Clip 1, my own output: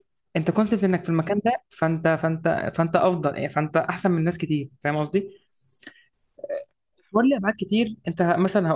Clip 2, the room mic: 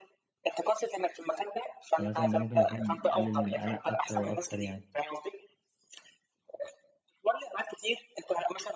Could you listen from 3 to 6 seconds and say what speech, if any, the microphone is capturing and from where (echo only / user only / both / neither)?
both